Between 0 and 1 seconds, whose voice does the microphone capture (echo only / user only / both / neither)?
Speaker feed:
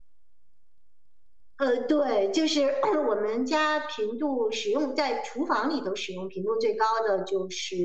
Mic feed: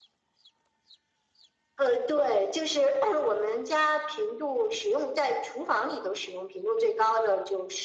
neither